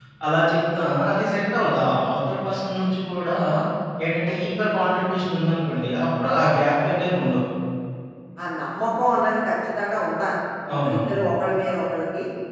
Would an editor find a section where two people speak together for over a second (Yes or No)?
No